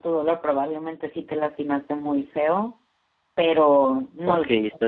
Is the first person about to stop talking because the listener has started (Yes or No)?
Yes